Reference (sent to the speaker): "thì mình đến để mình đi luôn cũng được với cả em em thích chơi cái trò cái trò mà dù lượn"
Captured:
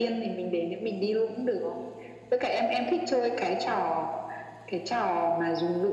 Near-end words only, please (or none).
none